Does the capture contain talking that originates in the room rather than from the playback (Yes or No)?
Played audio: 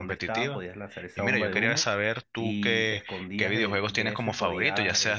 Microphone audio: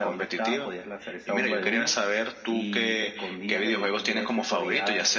No